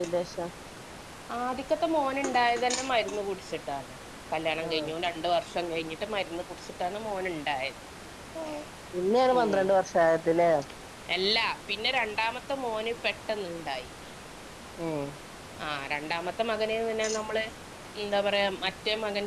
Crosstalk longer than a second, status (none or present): none